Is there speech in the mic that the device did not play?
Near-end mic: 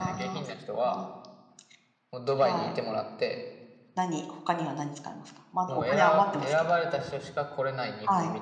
Yes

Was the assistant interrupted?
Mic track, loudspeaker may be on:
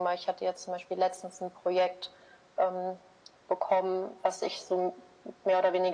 No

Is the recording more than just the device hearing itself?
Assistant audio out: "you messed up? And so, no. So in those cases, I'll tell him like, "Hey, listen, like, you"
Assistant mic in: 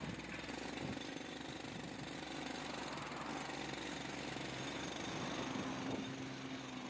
No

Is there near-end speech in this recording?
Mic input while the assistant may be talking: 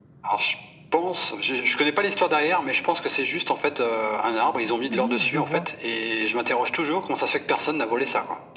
Yes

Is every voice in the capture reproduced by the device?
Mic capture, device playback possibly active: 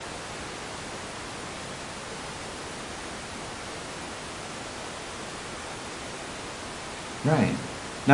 No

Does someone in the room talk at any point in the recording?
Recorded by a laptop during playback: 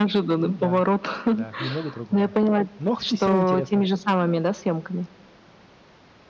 Yes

